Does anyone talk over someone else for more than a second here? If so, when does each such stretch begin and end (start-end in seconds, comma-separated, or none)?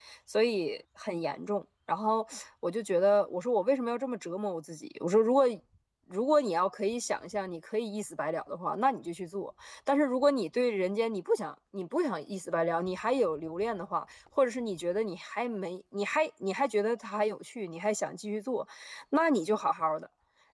none